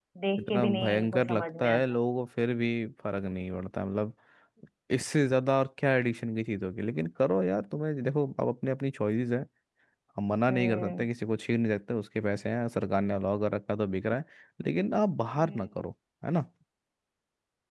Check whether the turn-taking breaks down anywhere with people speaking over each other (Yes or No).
Yes